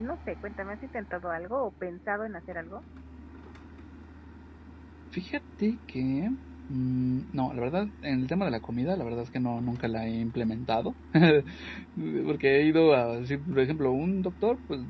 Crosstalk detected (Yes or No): No